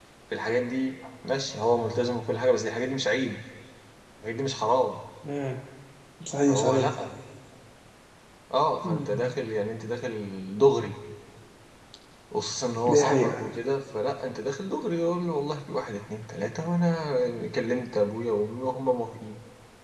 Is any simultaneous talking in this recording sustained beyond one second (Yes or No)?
No